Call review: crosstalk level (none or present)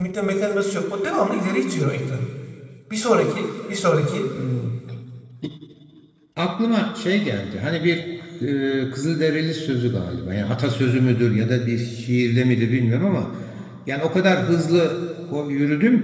none